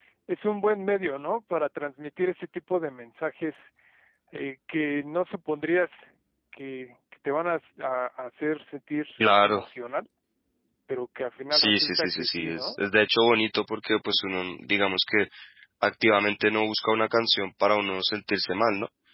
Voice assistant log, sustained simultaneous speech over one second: present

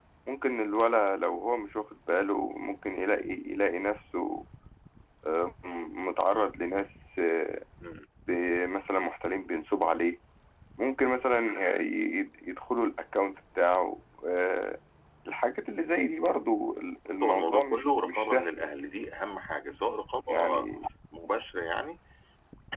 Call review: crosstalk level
present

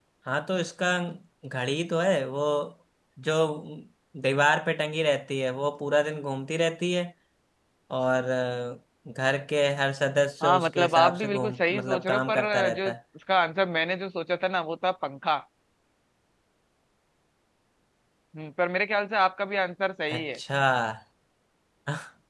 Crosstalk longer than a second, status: present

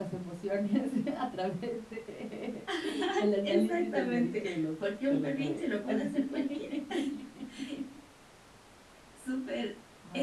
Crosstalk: present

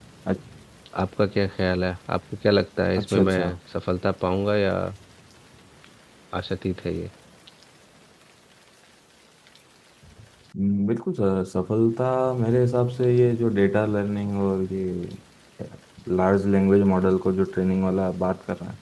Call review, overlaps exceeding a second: none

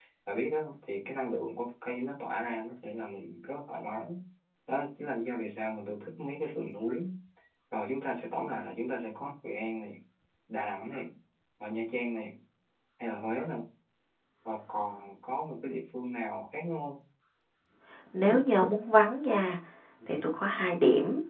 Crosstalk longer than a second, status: none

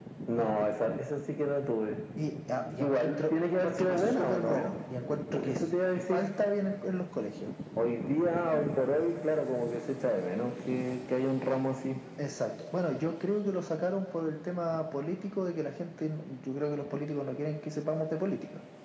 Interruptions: present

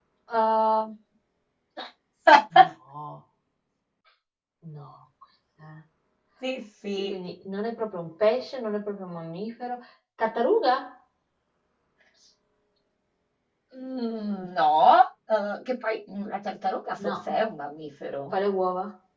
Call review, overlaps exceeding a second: none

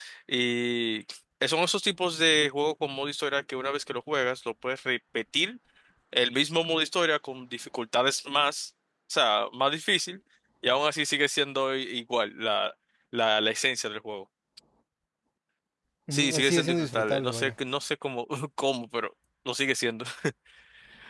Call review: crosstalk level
present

